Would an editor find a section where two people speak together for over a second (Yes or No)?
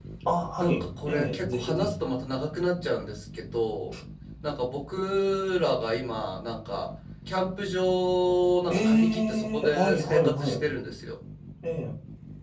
Yes